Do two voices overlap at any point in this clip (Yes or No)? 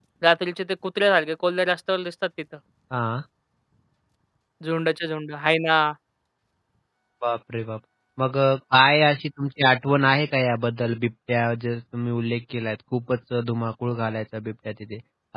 No